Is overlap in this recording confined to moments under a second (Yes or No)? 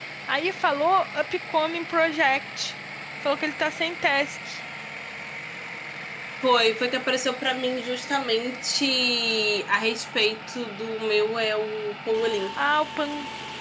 Yes